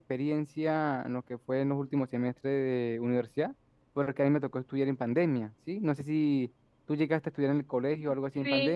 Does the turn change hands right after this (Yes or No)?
Yes